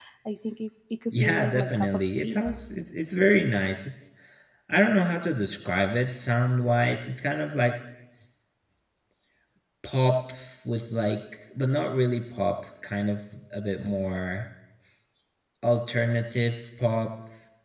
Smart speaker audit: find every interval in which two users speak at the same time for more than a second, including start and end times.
1.1-2.5

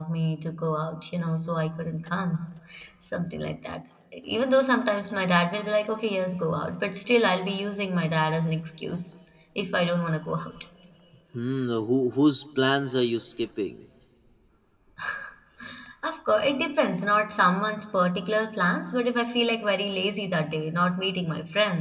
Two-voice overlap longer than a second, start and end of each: none

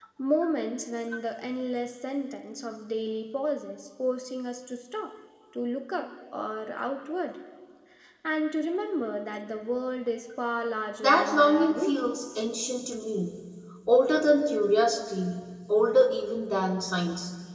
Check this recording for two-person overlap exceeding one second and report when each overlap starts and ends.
11.0-12.4

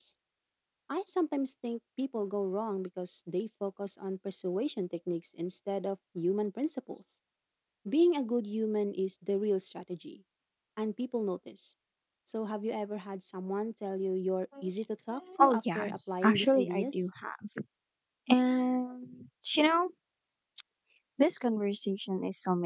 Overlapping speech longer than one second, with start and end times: 15.4-17.1

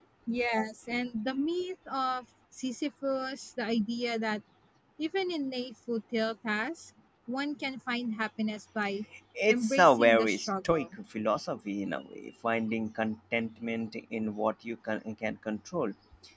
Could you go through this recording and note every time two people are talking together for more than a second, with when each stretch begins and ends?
9.5-11.0

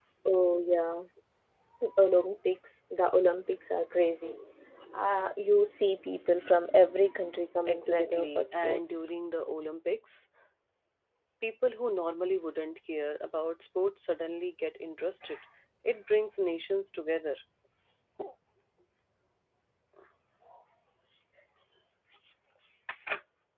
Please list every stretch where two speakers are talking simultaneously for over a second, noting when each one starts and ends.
7.7-9.0

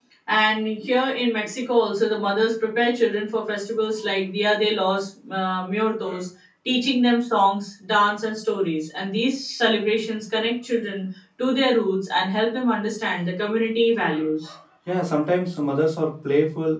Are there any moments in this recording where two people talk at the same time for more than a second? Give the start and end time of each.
none

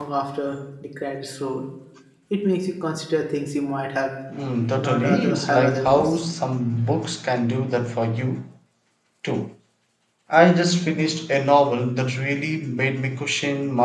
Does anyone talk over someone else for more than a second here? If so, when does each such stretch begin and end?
4.8-6.2

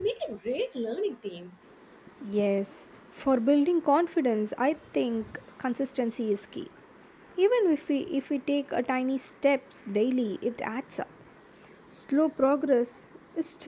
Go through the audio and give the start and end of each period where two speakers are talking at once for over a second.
none

